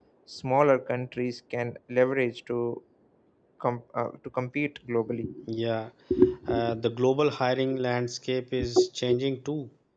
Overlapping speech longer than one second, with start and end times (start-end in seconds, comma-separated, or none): none